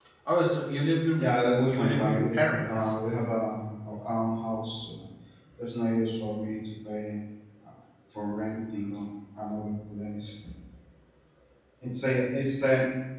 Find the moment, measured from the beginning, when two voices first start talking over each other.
1.2 s

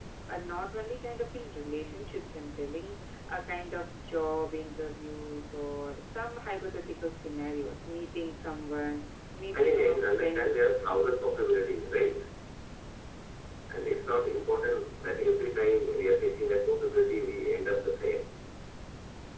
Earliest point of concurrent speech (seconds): 9.5 s

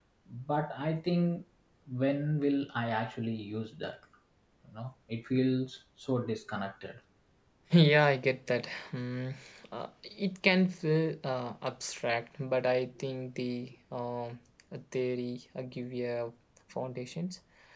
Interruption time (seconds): none

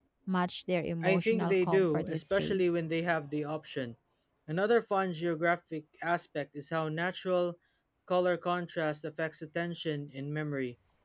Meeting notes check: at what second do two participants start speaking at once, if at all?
1.0 s

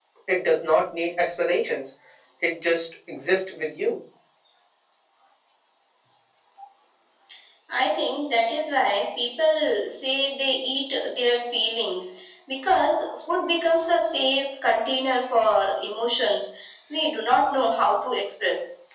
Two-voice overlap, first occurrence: none

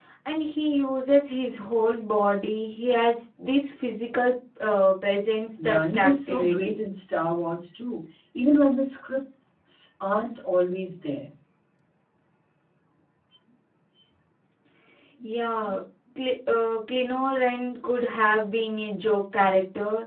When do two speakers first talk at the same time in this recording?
5.6 s

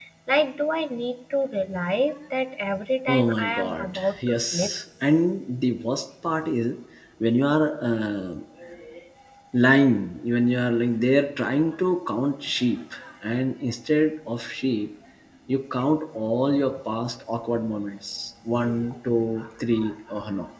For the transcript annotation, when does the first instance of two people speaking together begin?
3.1 s

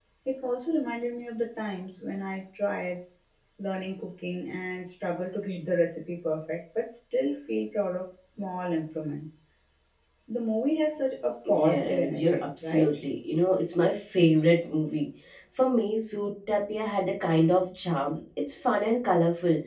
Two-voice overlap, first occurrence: 11.4 s

